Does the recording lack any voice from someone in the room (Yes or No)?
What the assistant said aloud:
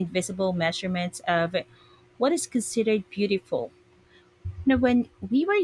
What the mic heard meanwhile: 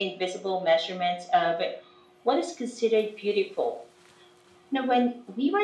Yes